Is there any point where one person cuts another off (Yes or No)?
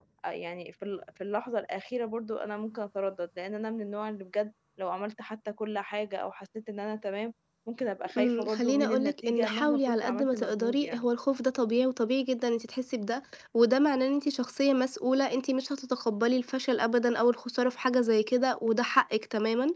Yes